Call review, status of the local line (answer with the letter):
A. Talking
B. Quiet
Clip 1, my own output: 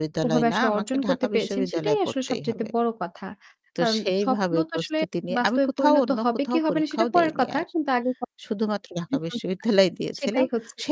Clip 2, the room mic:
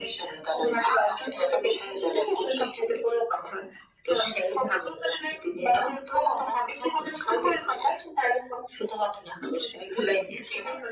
B